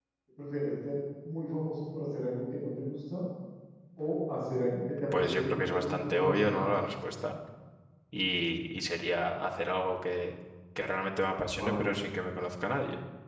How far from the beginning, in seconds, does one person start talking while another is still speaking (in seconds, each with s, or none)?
5.2 s